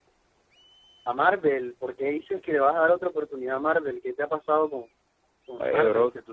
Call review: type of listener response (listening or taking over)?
taking over